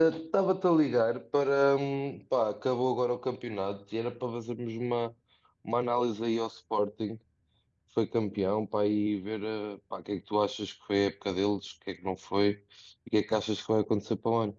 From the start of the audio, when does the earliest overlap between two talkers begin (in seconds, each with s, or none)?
none